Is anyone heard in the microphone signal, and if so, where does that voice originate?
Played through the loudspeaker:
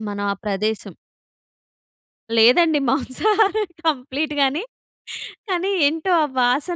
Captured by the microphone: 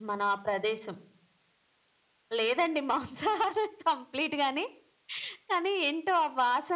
echo only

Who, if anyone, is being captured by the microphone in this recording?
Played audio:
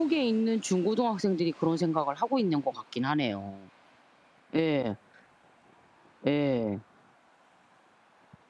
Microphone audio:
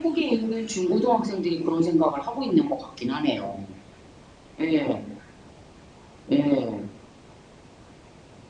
echo only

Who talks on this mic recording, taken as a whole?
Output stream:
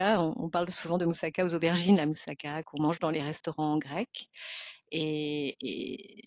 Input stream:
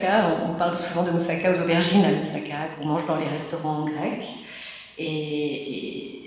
echo only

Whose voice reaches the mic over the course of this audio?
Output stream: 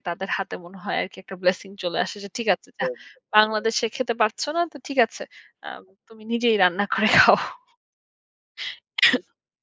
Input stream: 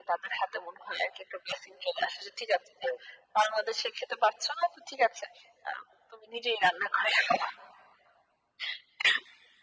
echo only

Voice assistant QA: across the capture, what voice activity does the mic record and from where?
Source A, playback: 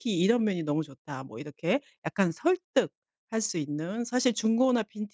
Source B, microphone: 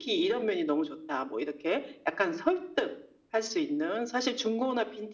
echo only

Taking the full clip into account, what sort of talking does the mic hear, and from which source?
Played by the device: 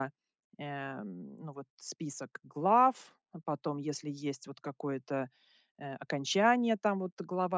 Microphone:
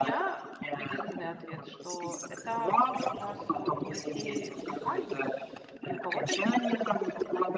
both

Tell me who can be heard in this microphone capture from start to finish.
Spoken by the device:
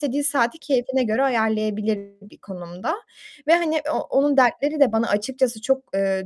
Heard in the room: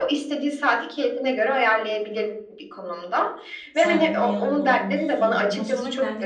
both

